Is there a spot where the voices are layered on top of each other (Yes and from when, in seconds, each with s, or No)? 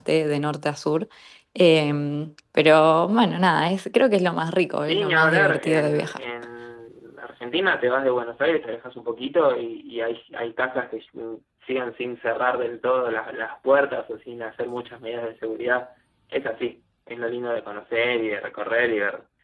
Yes, from 4.8 s